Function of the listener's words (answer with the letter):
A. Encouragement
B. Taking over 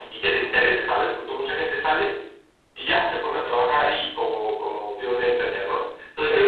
A